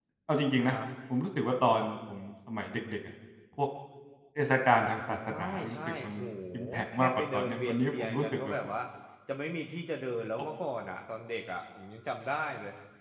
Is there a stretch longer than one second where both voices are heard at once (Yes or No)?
Yes